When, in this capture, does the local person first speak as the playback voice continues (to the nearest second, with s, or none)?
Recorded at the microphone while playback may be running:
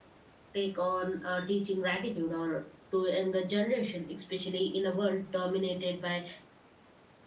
1 s